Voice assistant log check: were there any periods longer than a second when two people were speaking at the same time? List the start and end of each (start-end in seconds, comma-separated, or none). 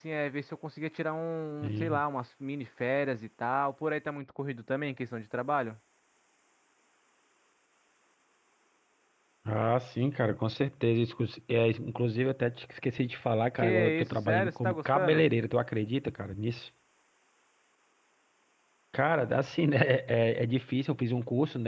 13.6-15.2